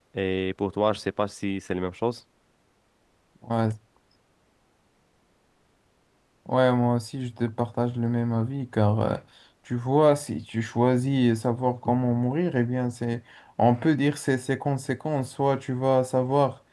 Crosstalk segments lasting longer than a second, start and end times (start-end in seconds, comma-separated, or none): none